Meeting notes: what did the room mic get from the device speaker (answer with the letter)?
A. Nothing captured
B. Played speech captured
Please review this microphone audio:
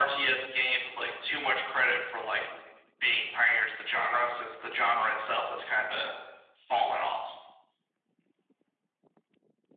B